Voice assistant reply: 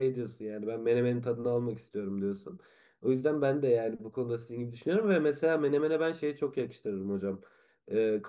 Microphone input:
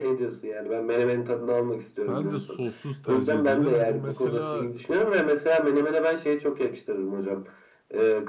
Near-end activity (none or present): present